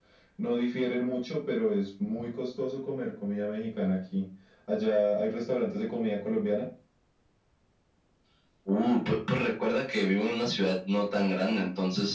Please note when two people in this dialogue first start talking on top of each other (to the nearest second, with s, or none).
none